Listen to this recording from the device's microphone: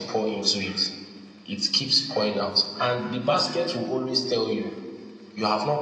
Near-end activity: none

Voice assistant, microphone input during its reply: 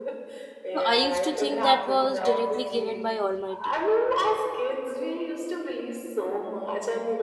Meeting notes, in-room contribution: present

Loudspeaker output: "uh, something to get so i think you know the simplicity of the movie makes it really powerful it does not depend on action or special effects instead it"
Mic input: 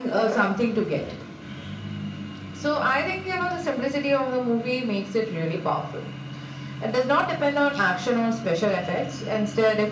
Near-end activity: none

